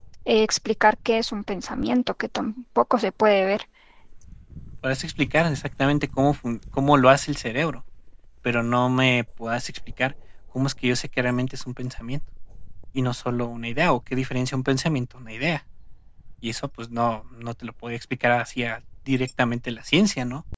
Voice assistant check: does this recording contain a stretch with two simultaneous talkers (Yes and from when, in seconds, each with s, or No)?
No